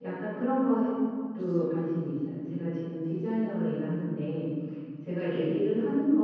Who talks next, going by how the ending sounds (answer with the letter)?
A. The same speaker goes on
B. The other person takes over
A